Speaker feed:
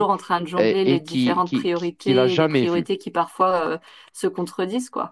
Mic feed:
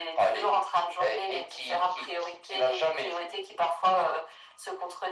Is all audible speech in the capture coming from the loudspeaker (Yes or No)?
Yes